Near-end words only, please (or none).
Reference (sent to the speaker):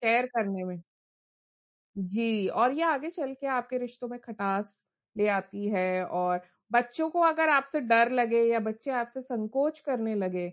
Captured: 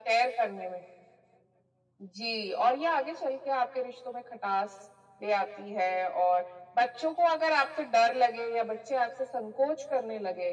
none